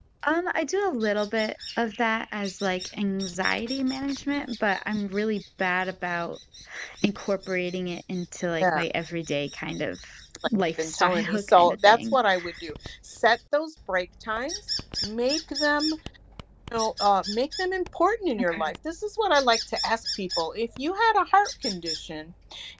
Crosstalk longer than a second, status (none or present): present